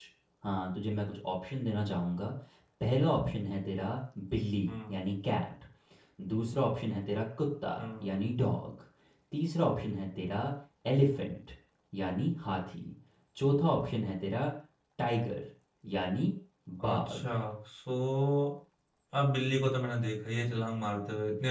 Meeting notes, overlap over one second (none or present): none